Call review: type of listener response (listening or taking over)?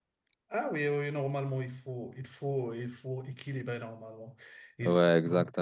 taking over